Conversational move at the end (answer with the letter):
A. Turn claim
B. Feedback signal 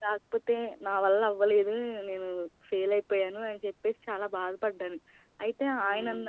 B